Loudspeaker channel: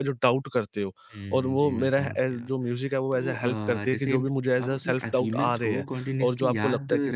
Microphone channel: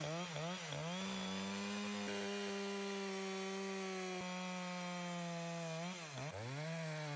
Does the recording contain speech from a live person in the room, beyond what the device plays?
No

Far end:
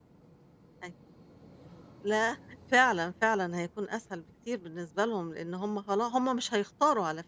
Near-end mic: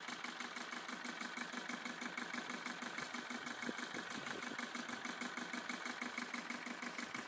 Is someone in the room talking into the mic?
No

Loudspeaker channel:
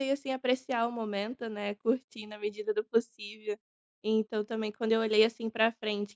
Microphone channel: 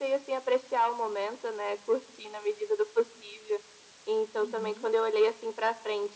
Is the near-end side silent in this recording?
No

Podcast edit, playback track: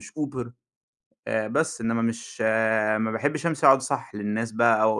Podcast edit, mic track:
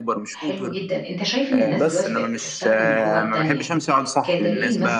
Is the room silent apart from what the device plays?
No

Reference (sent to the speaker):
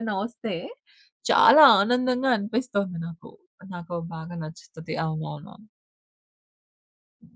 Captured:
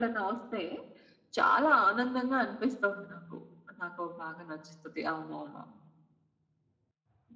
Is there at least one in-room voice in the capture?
No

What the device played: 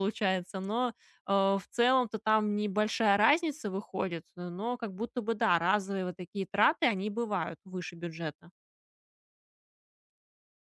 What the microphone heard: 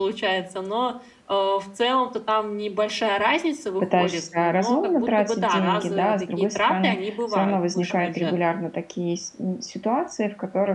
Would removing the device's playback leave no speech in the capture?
No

